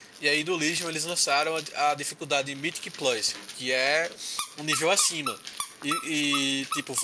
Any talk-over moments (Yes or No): No